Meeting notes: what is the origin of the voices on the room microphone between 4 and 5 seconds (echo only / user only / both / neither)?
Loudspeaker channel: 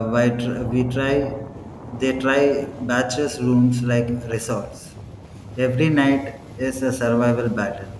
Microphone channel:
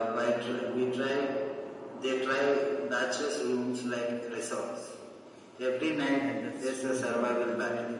echo only